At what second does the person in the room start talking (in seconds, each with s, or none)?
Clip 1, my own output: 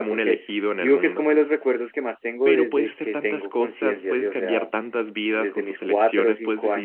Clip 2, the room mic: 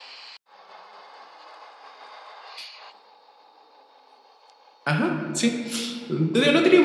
4.8 s